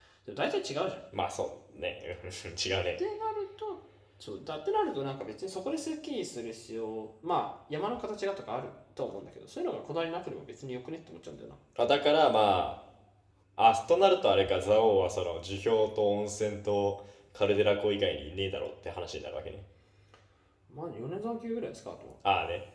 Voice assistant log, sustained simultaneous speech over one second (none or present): none